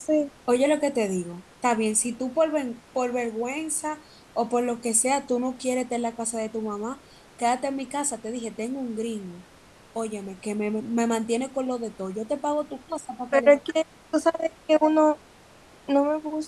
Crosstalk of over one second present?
No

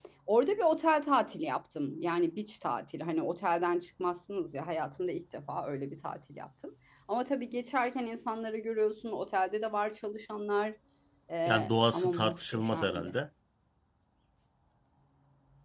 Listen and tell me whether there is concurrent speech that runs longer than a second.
Yes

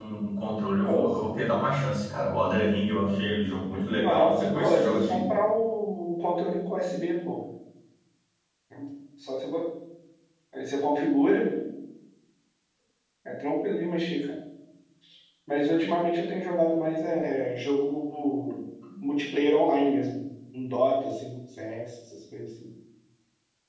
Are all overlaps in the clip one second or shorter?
No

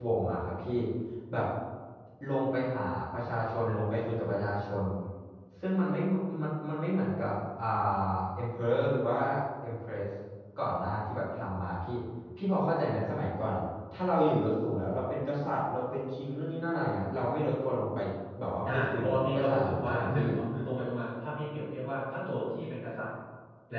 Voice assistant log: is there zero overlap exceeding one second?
No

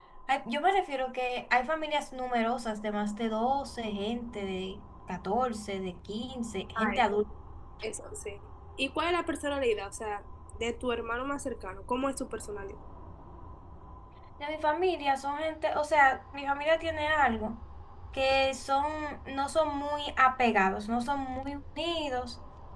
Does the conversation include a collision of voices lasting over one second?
No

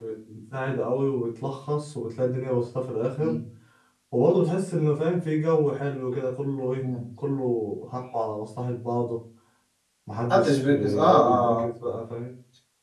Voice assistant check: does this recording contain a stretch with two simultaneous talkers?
Yes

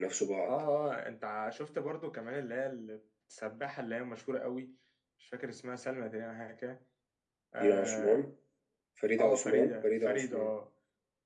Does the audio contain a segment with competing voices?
Yes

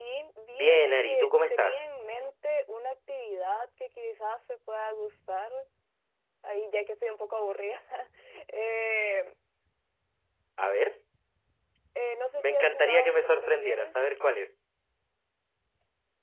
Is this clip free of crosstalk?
No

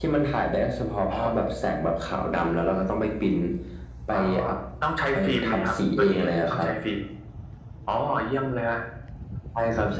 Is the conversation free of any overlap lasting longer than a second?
No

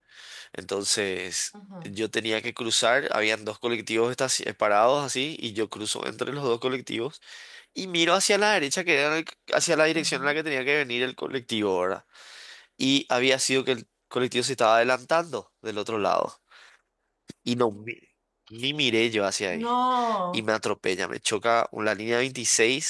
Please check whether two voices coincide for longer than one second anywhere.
No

